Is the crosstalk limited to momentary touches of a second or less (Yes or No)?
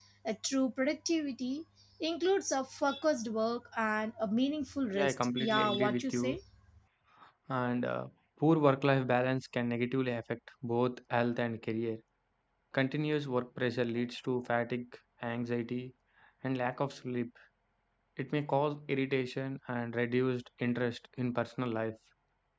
No